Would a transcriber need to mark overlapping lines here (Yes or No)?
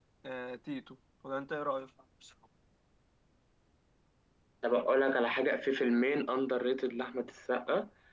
No